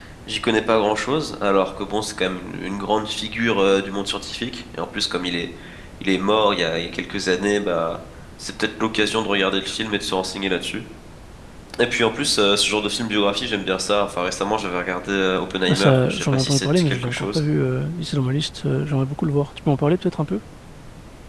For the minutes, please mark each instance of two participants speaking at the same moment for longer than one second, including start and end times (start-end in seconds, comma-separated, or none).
15.7-17.4